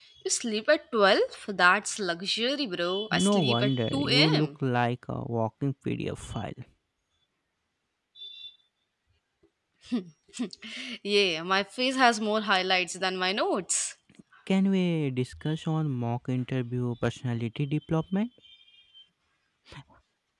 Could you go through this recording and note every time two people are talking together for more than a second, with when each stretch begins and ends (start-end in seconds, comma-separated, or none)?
3.1-4.5